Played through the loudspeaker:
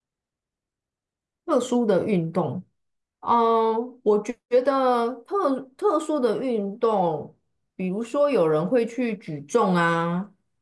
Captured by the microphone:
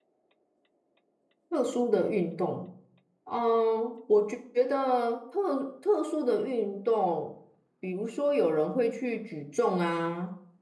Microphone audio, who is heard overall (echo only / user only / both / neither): echo only